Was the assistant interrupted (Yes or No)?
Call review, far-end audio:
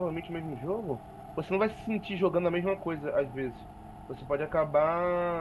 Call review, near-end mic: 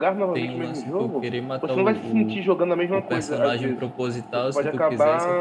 Yes